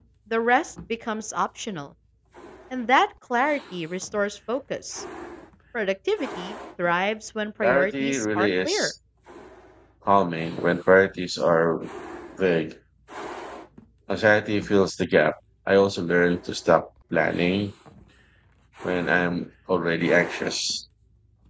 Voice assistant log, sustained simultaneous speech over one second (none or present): present